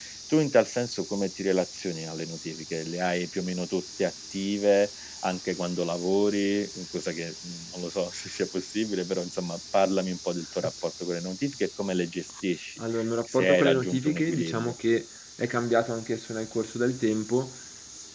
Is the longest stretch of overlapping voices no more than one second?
No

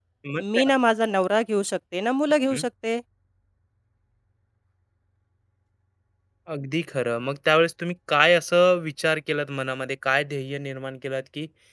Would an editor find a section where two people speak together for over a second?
No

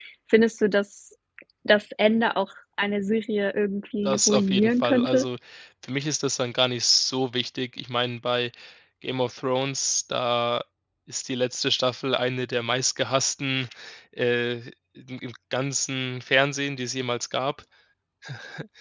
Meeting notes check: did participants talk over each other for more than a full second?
Yes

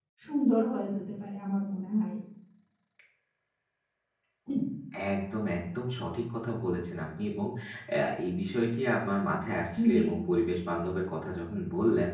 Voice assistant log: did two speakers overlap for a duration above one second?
No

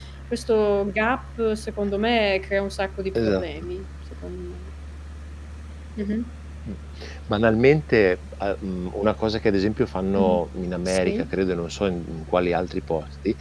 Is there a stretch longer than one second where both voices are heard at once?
No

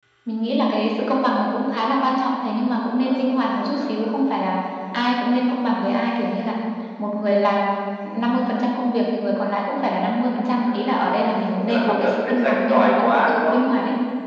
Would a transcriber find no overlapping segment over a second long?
No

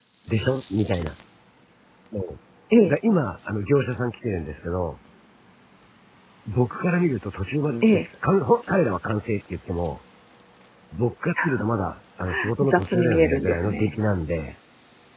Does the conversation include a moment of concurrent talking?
Yes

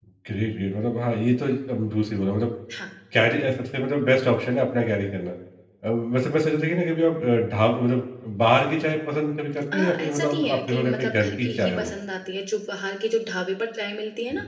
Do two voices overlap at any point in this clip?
Yes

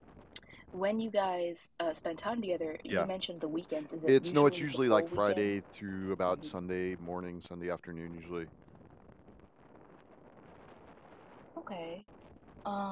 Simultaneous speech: Yes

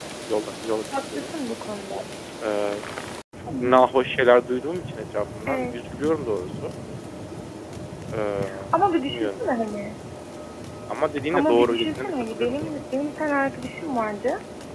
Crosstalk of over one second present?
Yes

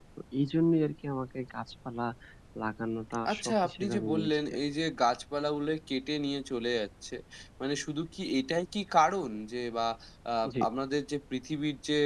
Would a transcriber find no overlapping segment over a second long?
No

